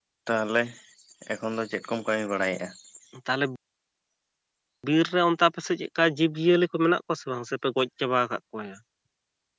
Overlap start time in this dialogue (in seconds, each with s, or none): none